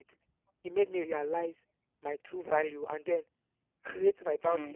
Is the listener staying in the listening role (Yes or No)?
Yes